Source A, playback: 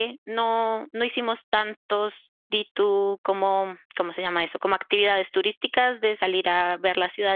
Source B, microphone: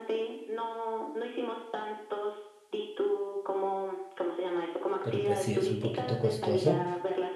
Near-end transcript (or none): pero pues sí, es un poquito costoso